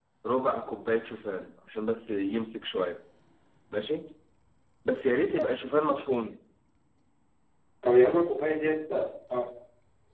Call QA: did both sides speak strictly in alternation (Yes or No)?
Yes